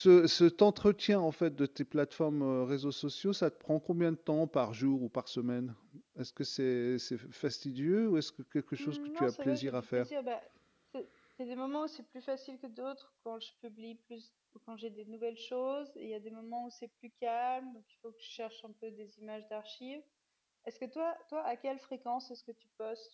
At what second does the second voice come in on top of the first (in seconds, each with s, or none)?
8.8 s